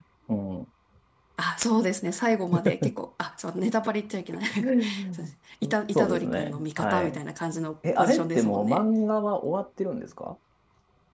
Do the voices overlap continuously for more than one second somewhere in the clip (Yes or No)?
Yes